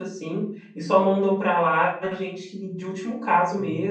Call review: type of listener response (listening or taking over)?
taking over